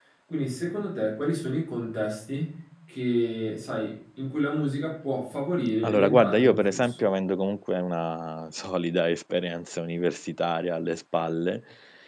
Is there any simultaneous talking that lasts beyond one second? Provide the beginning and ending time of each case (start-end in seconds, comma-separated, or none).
5.8-7.1